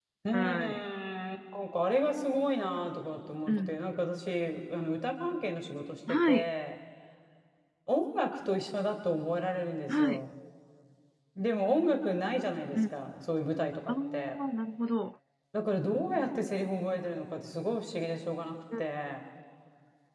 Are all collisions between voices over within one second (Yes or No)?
Yes